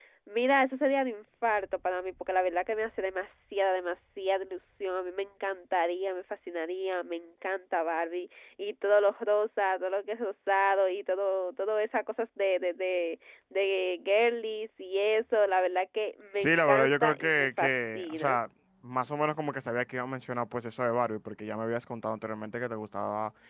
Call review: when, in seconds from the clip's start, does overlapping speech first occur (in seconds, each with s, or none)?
16.4 s